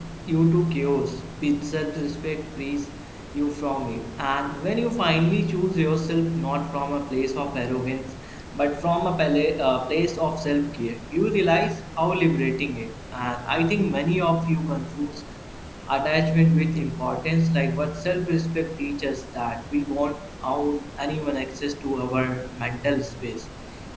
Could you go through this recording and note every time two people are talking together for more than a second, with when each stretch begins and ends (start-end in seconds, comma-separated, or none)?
none